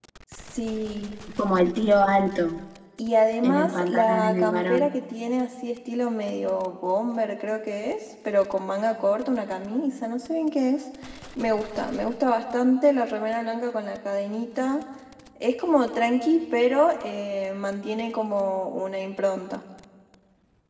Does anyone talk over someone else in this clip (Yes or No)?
Yes